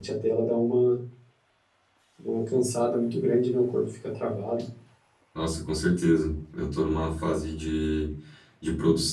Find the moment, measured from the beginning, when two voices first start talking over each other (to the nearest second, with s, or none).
none